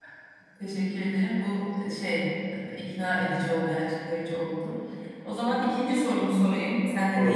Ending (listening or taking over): listening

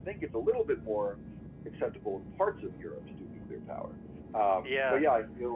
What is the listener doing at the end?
listening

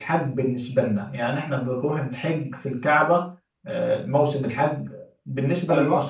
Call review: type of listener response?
listening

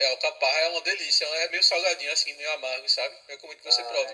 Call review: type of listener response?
taking over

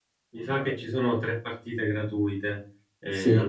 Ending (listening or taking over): taking over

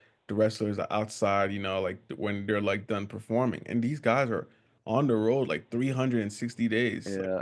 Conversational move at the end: listening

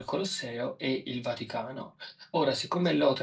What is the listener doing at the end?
listening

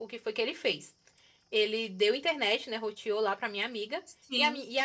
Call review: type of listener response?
listening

